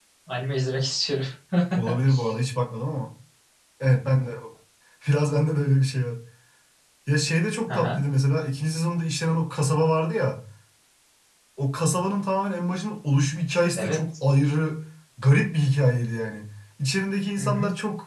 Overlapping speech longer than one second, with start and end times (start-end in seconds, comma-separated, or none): none